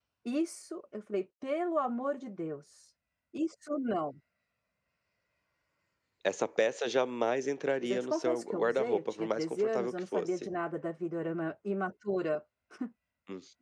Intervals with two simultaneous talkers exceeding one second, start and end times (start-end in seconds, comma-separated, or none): 7.8-10.5